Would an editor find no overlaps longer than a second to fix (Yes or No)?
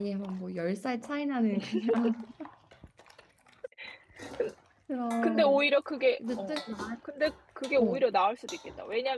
Yes